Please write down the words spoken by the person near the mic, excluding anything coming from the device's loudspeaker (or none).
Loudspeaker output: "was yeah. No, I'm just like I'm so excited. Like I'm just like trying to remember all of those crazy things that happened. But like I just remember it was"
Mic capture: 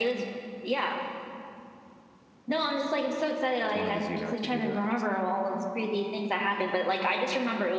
It's one of those you had to be there things.